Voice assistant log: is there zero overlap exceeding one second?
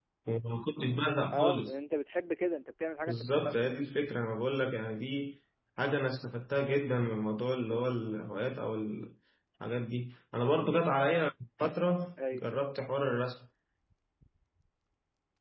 Yes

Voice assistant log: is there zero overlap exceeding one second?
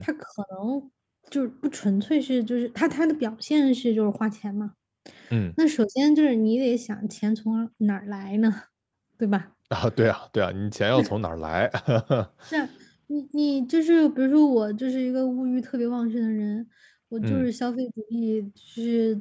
Yes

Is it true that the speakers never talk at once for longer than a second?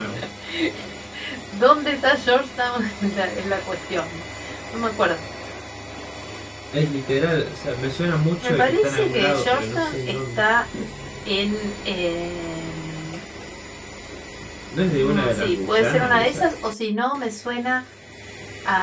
No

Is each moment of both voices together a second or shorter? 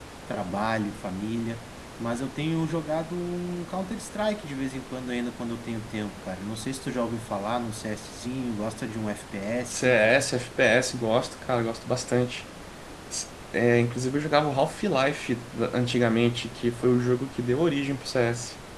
Yes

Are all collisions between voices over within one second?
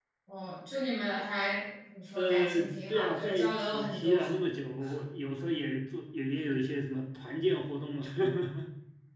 No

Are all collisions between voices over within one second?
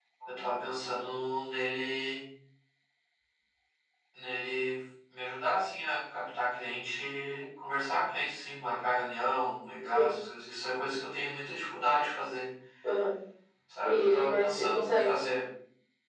No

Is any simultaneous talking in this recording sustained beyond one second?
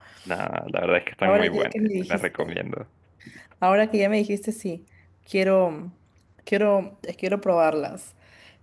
Yes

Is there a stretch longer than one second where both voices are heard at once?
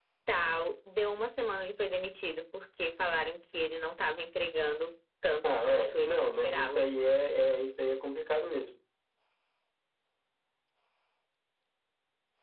Yes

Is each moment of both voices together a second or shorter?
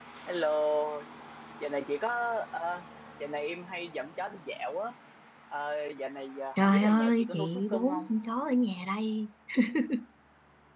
No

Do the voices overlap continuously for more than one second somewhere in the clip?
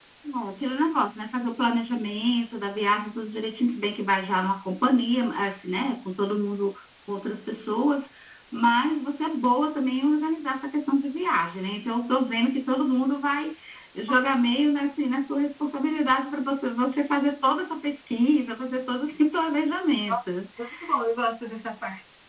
No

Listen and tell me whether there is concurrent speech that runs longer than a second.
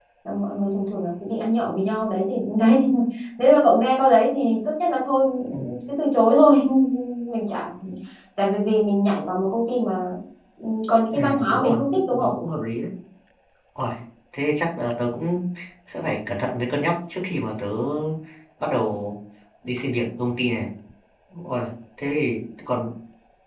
Yes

